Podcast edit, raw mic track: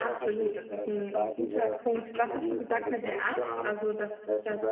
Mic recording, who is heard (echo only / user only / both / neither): both